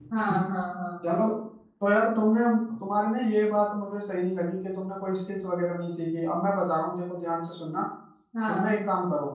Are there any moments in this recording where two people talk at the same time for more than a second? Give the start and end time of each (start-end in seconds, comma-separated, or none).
none